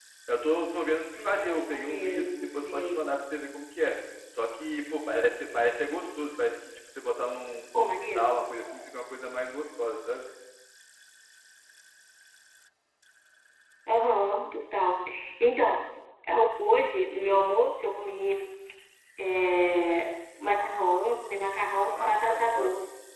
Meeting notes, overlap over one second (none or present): present